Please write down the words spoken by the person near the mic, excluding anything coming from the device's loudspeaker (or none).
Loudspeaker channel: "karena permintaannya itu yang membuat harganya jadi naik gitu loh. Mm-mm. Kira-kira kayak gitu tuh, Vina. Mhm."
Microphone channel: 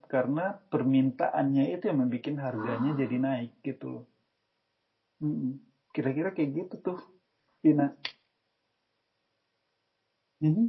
Ah,